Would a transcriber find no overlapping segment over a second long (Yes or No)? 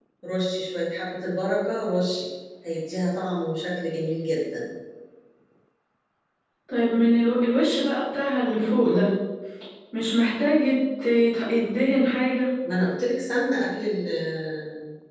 Yes